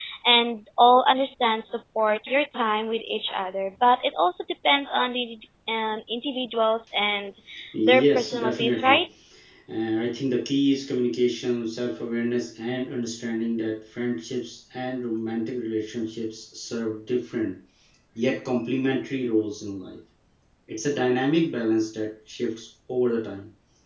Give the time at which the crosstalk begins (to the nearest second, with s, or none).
8 s